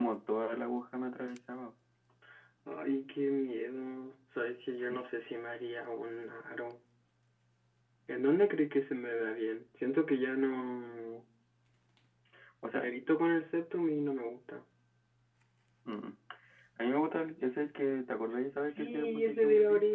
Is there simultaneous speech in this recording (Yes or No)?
Yes